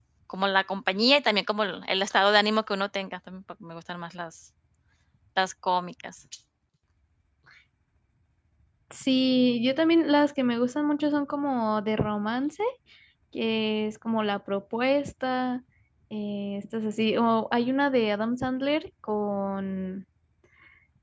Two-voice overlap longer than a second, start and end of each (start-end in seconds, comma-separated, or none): none